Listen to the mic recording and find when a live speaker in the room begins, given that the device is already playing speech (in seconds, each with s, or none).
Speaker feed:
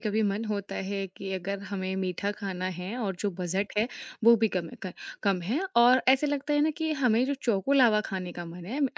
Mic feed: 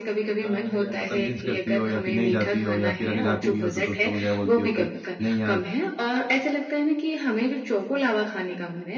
0.4 s